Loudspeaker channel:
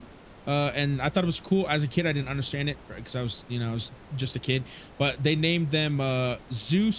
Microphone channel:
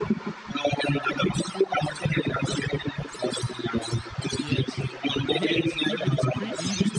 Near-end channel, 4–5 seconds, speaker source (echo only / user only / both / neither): both